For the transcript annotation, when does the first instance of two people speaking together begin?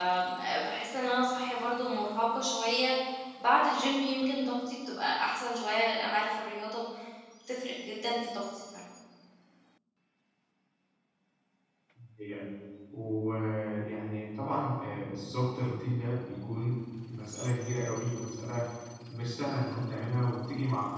none

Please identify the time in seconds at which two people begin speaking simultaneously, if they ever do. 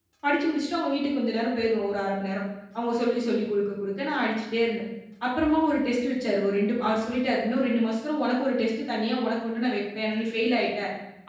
none

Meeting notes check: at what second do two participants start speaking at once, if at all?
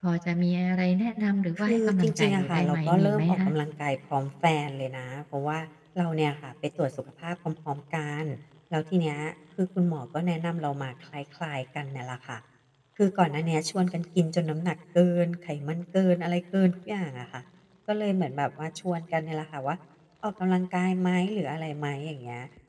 1.6 s

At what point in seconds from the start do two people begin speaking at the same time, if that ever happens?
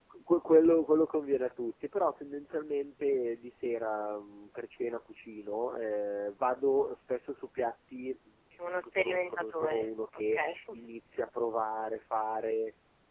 8.6 s

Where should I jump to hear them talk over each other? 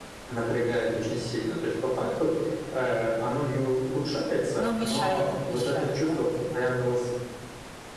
4.5 s

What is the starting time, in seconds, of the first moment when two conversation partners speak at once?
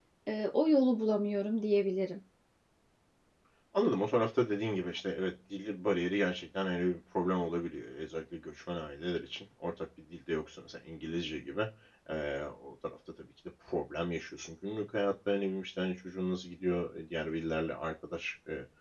none

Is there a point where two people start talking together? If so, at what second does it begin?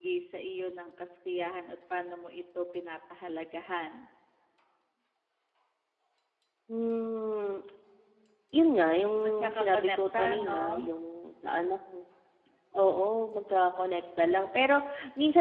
9.4 s

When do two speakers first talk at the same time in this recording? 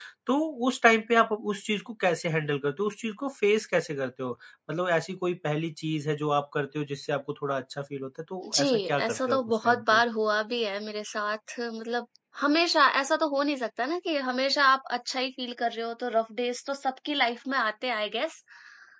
8.4 s

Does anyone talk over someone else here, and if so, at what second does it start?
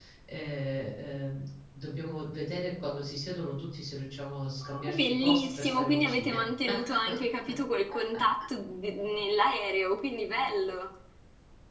4.6 s

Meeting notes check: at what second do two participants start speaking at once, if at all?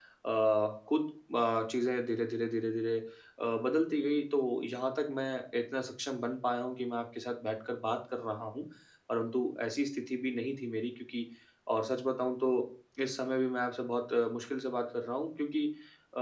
none

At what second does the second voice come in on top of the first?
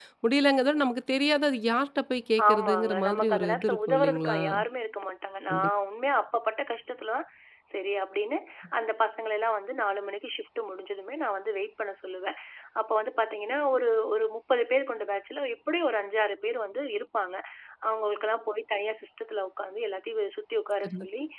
2.5 s

